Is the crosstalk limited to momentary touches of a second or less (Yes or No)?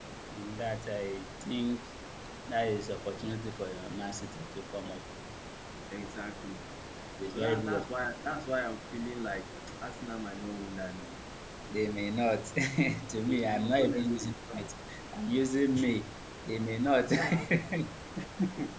No